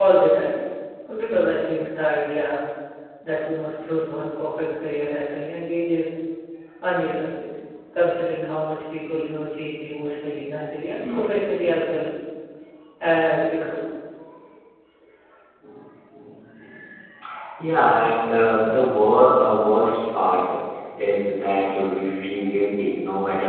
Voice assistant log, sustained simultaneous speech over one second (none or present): none